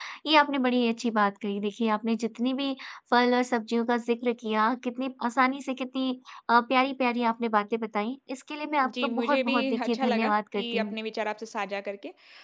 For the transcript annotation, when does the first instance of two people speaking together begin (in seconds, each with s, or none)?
8.8 s